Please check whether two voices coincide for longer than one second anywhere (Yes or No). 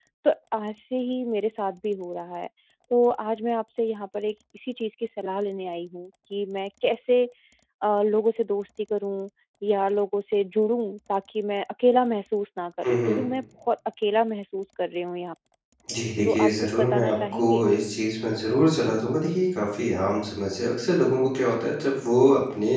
Yes